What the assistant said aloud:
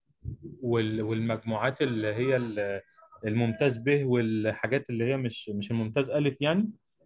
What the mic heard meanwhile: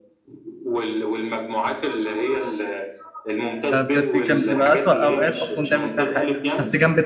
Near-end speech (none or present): present